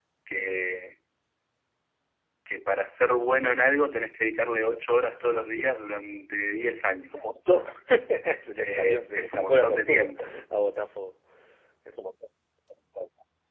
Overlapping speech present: Yes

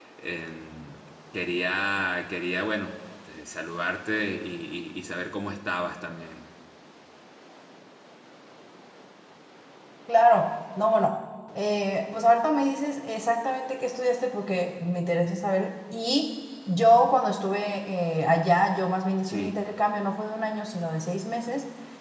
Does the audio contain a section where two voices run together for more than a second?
No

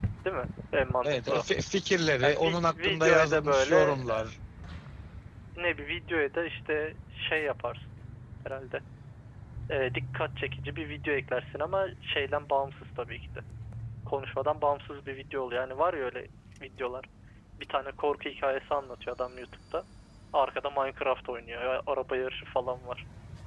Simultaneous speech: Yes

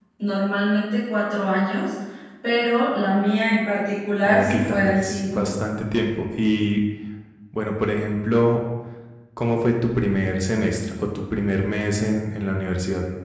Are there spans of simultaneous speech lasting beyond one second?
Yes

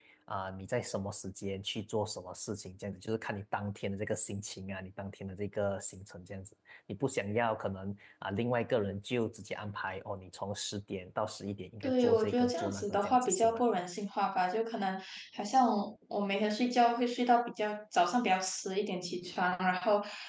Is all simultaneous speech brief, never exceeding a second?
No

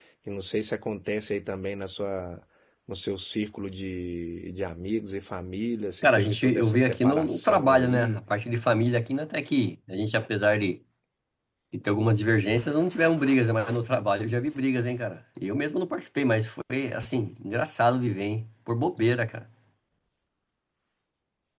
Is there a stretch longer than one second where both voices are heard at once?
Yes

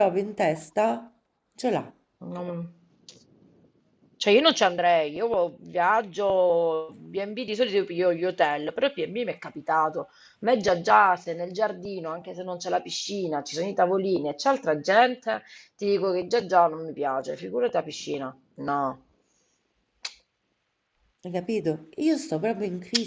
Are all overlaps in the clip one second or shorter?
Yes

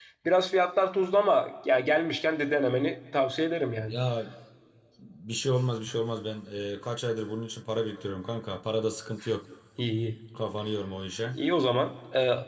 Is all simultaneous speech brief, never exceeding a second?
Yes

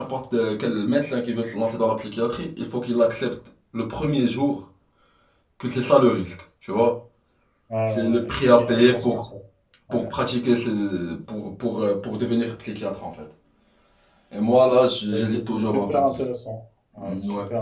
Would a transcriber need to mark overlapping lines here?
Yes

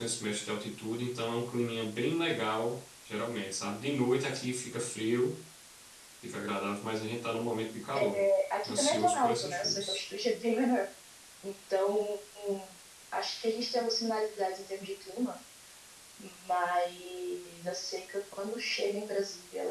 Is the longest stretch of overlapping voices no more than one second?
No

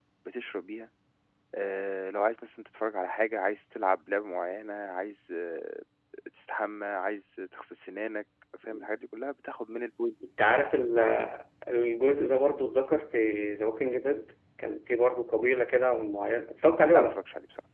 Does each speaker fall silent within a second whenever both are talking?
Yes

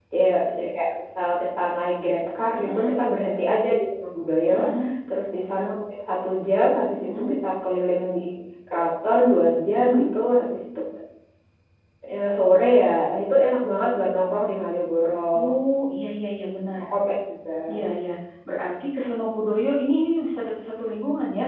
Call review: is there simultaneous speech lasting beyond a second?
No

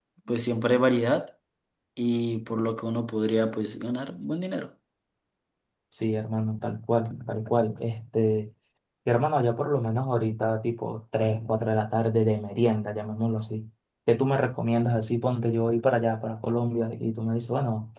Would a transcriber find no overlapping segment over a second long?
Yes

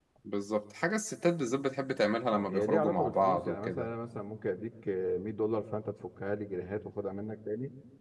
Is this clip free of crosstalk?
No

